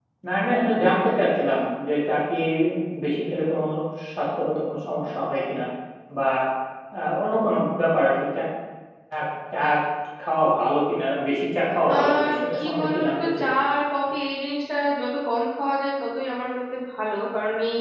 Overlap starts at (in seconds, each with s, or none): 11.9 s